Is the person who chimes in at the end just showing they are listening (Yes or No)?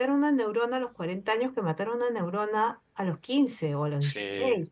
Yes